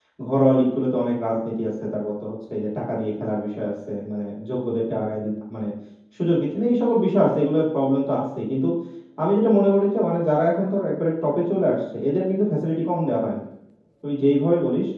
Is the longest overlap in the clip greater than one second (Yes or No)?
No